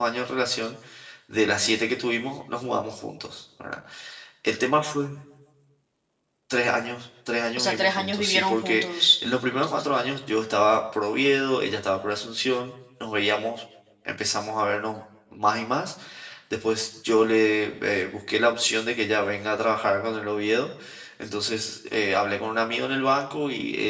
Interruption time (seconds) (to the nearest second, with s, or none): 8 s